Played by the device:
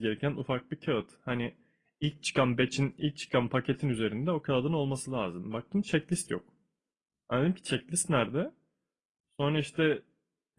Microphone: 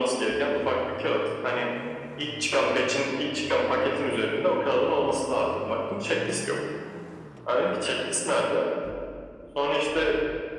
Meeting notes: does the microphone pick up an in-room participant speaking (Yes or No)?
No